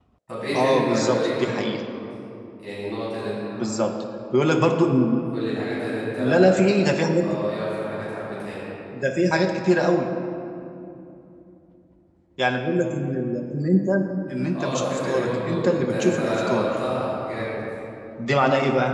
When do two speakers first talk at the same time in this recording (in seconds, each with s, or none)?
0.6 s